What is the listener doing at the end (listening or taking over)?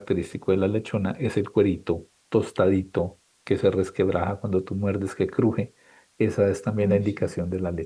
listening